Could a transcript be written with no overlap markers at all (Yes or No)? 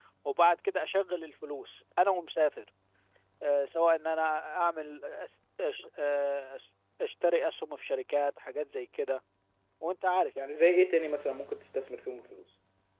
Yes